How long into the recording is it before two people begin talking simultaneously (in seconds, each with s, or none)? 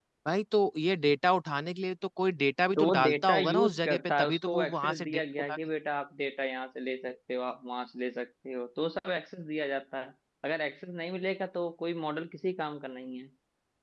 2.8 s